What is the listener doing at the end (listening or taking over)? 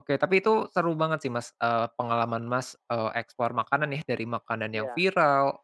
listening